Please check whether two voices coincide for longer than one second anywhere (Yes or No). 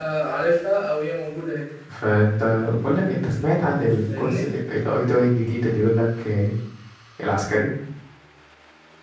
No